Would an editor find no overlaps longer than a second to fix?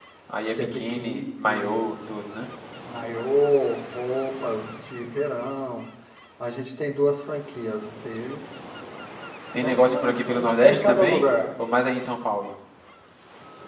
No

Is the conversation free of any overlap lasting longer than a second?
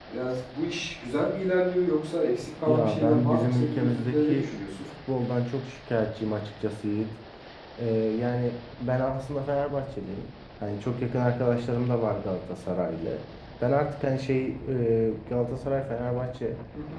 No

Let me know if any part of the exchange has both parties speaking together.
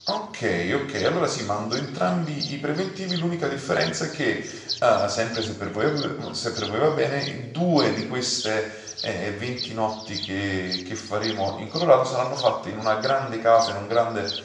No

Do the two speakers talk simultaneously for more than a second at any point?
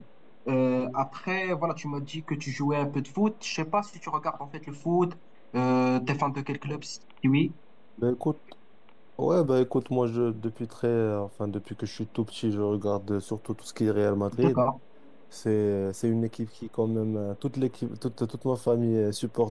No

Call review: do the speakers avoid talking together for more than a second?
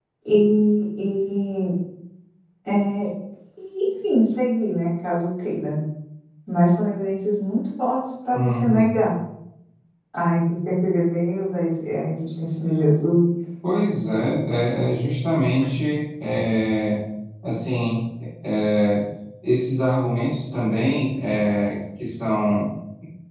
Yes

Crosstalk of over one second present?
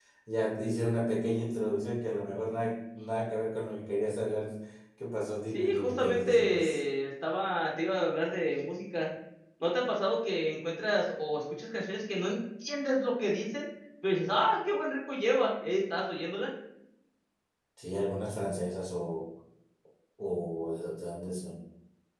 Yes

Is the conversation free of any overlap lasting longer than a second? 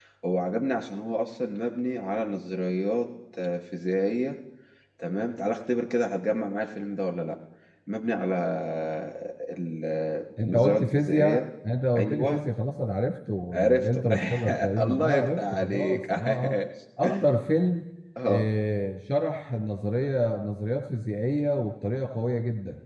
No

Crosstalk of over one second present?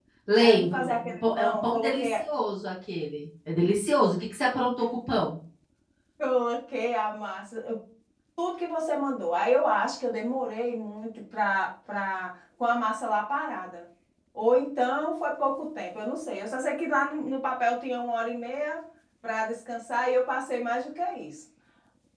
Yes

